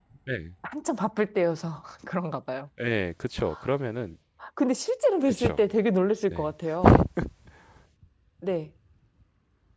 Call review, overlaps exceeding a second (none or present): none